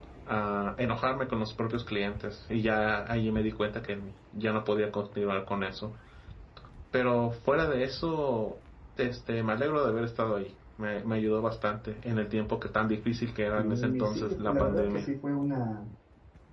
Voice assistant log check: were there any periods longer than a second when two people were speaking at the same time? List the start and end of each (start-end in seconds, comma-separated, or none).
13.6-15.1